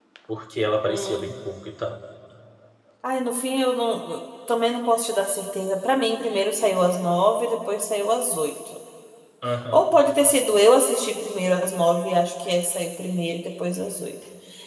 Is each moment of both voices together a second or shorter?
Yes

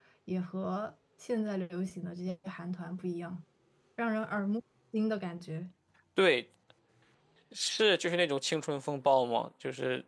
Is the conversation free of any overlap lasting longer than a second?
Yes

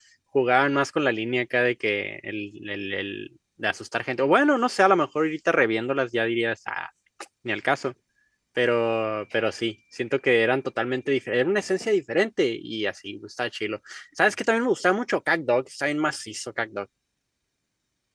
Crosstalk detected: No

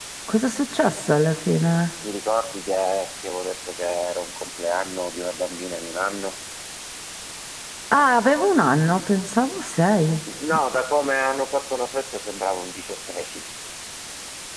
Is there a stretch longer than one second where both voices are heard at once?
No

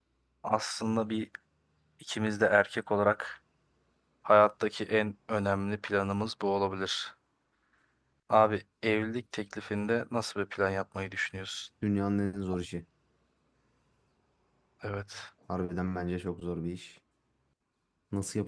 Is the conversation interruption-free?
Yes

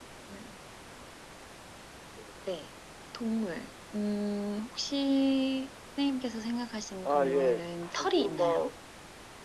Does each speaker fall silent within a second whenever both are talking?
No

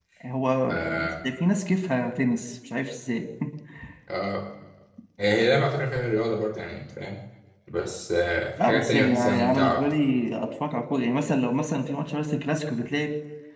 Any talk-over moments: Yes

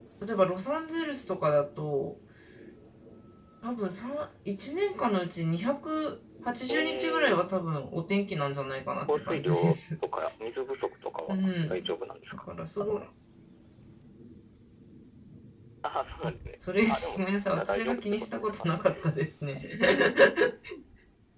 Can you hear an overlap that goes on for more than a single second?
Yes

